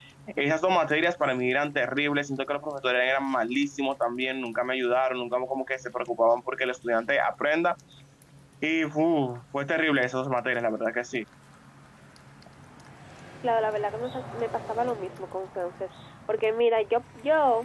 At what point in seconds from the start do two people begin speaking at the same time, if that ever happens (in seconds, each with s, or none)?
none